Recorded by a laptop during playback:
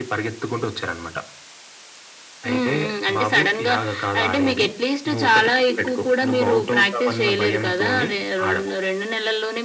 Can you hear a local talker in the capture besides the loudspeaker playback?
No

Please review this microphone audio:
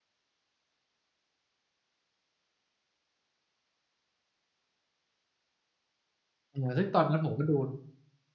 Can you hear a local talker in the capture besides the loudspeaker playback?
Yes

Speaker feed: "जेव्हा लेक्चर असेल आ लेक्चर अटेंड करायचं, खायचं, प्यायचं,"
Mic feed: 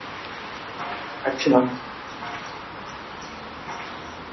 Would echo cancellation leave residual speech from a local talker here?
Yes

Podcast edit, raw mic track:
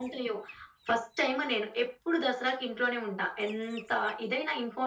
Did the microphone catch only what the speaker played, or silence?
Yes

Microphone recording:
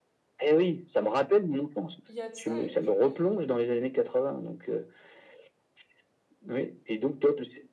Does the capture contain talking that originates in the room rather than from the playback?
Yes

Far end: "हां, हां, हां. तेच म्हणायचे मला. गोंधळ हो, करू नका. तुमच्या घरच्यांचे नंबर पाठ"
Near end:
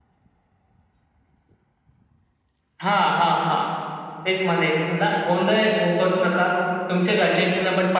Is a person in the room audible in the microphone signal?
No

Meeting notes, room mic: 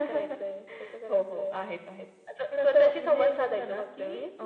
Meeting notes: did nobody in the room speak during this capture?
Yes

